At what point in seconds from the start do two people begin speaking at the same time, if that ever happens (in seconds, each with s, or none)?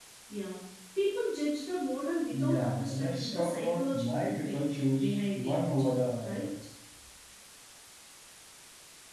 2.3 s